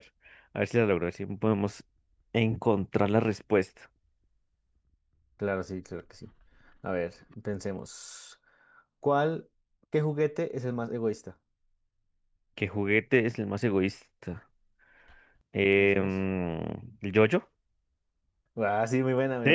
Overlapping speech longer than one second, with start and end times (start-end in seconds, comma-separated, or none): none